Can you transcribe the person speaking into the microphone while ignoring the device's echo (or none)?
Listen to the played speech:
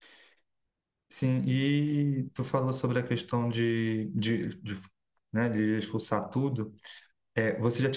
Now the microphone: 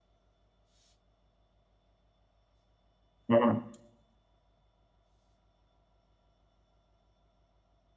Uhum.